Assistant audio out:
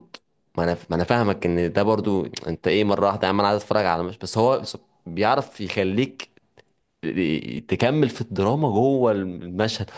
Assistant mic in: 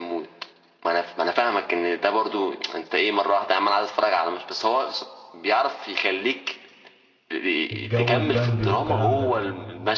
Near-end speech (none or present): present